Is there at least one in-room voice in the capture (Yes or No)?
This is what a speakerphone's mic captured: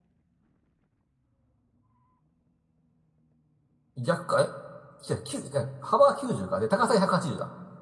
Yes